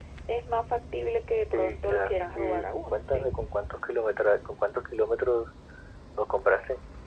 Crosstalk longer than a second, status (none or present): present